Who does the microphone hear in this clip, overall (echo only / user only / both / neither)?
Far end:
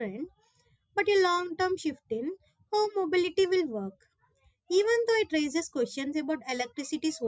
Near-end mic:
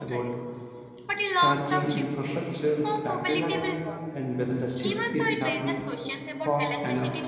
both